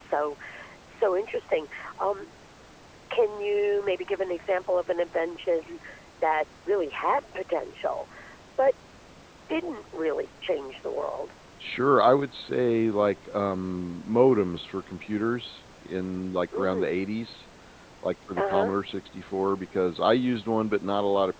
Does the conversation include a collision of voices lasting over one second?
No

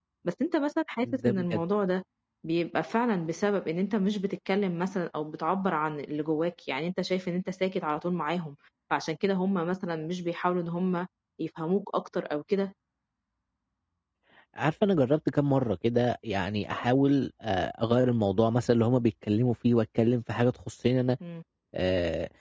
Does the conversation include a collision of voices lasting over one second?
No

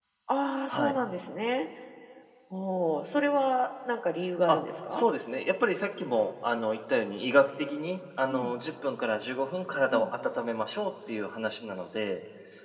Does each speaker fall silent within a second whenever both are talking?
Yes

